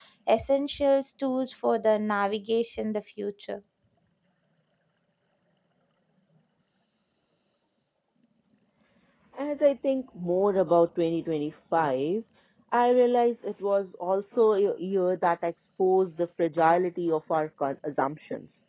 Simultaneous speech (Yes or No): No